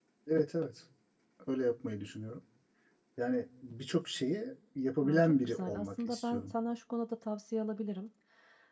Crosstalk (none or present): present